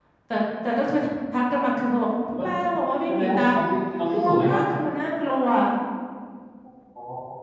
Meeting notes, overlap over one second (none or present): none